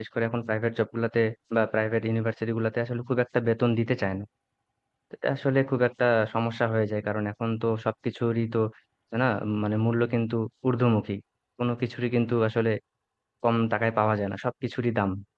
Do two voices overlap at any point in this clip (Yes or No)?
No